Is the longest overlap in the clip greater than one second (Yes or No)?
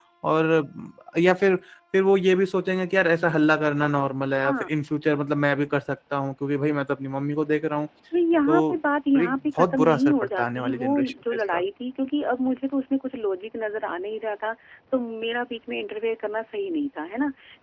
Yes